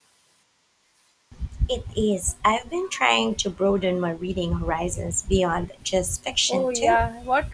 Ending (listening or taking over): taking over